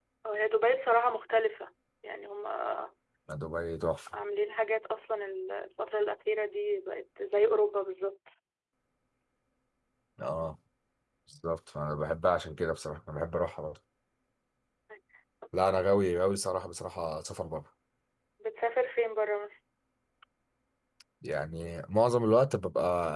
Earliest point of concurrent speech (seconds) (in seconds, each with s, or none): none